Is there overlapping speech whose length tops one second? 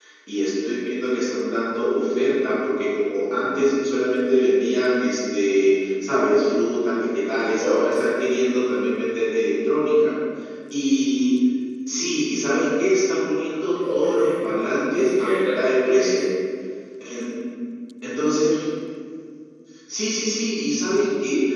Yes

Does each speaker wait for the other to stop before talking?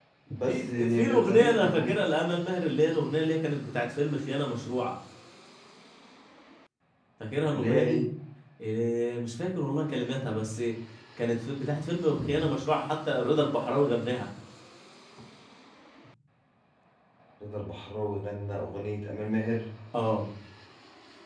No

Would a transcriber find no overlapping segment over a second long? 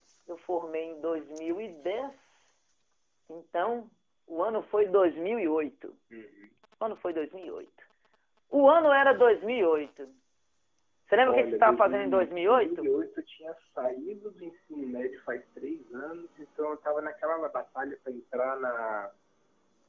No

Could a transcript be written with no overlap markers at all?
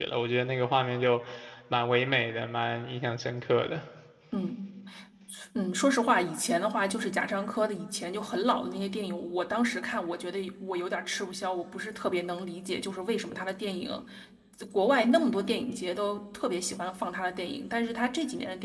Yes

